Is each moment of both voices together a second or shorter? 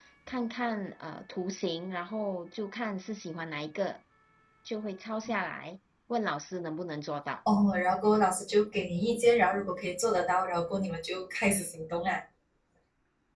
Yes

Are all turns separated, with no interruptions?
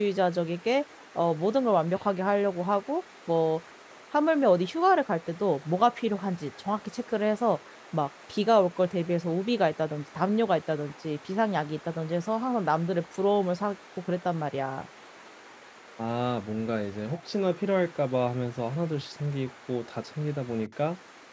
Yes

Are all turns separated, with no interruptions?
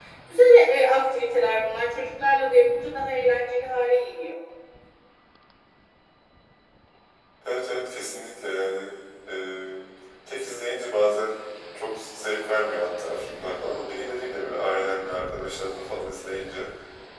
Yes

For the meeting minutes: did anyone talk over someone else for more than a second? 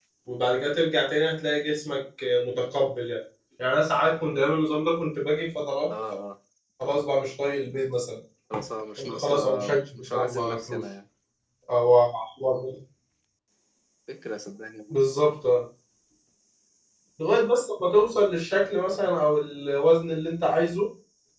Yes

